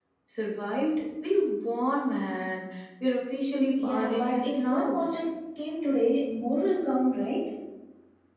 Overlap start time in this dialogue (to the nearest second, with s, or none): 4 s